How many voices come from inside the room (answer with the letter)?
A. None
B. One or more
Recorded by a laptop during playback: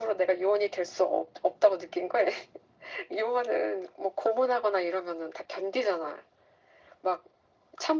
A